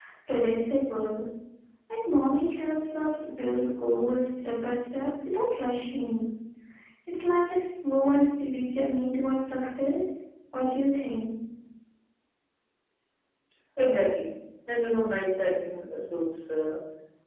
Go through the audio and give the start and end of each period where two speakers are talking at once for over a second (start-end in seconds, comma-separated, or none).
none